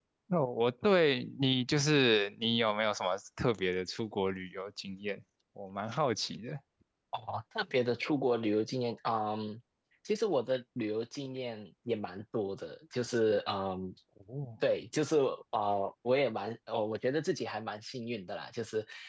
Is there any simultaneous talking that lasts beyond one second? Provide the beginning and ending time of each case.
none

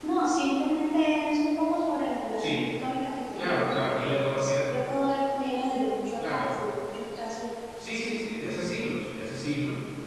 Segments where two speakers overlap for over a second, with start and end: 3.4-4.7

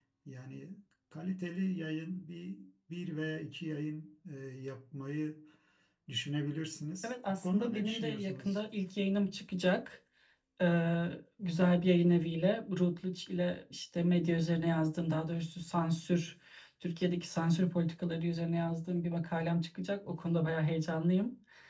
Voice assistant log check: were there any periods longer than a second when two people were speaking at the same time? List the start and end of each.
7.0-8.6

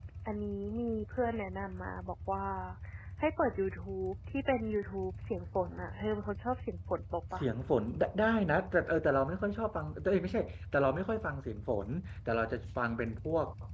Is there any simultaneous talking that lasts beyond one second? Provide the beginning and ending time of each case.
none

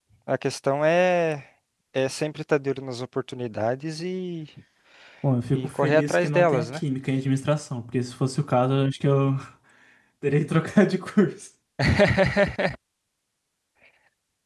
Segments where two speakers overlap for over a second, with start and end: 5.5-6.8

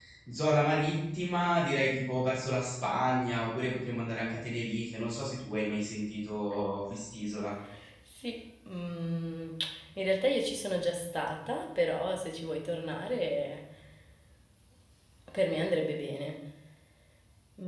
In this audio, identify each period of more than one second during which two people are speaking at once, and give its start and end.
none

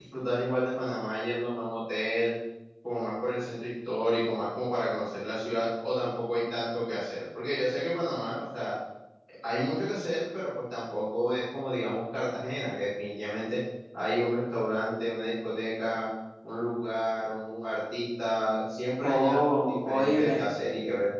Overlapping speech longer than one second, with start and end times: 19.0-20.4

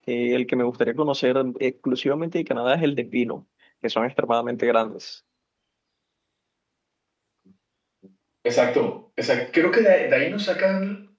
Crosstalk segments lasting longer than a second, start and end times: none

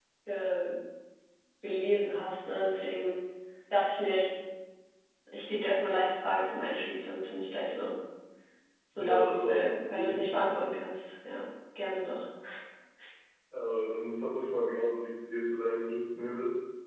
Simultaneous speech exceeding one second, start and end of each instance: 8.9-10.2

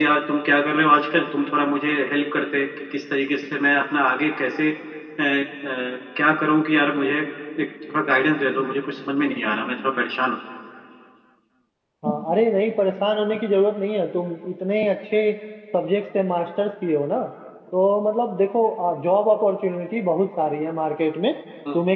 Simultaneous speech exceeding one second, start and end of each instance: none

